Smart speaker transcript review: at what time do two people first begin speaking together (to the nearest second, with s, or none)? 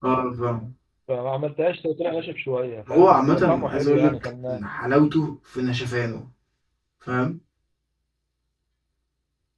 3 s